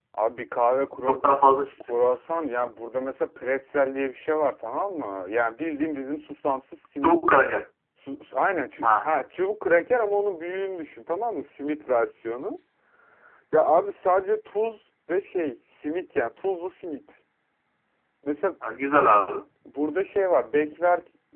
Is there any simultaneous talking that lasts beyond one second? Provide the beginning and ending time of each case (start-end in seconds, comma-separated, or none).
none